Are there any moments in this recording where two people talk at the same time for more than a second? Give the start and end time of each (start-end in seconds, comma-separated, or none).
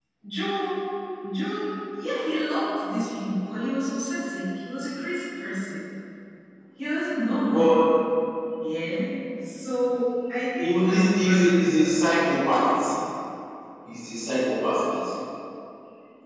10.6-12.2